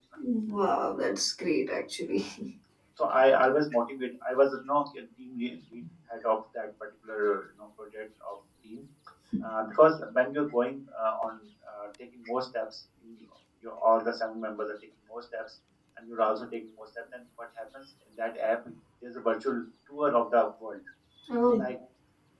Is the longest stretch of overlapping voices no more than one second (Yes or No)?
Yes